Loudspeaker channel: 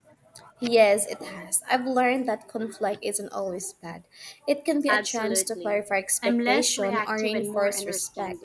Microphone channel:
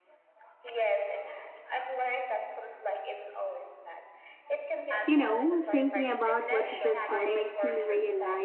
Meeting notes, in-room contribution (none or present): present